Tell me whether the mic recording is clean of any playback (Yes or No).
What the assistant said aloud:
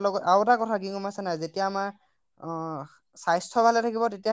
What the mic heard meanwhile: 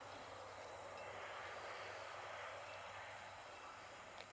Yes